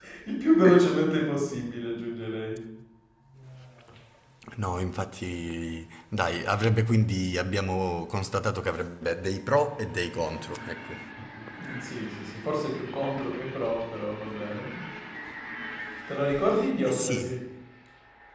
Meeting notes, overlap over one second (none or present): none